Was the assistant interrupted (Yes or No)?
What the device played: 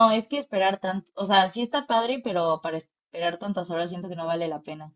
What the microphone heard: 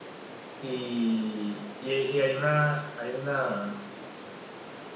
Yes